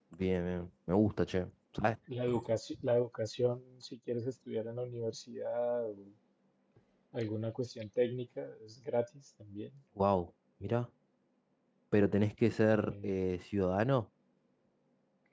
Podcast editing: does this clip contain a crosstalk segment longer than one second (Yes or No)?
No